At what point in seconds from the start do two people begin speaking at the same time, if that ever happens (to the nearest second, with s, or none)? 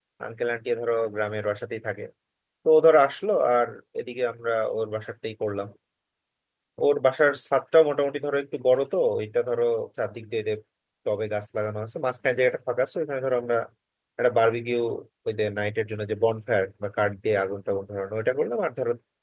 none